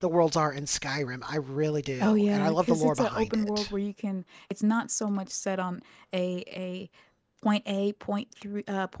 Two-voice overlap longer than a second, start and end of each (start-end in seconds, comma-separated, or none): 2.0-3.7